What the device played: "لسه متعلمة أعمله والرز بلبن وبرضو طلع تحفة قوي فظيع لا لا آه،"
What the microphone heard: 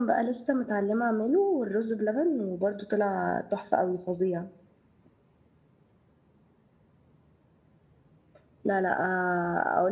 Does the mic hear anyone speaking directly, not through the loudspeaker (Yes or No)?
No